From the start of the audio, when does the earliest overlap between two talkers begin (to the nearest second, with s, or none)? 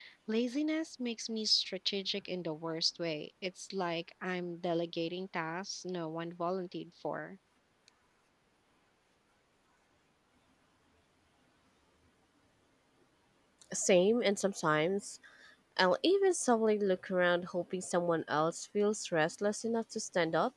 none